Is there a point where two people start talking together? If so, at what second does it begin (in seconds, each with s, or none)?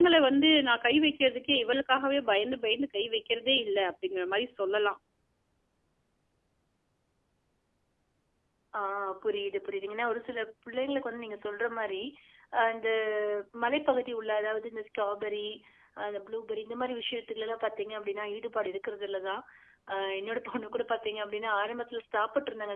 none